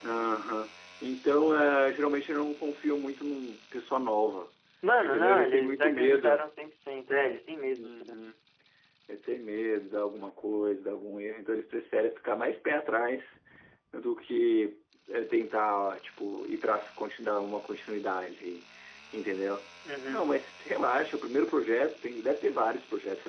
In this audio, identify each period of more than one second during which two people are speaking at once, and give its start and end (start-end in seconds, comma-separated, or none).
5.0-6.4